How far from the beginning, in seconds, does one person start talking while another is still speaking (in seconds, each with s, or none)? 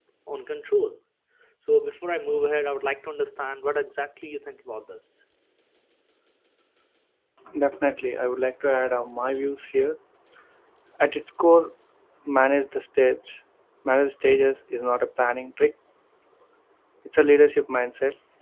none